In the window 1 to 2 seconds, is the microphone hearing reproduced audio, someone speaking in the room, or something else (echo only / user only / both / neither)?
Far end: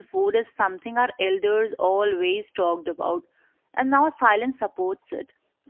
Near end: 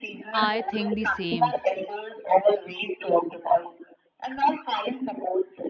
both